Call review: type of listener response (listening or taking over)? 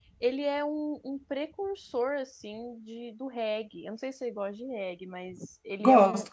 listening